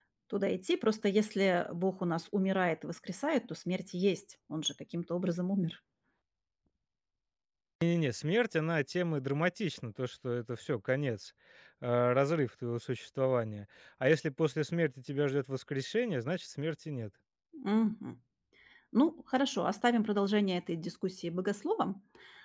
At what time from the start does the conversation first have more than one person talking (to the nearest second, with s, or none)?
none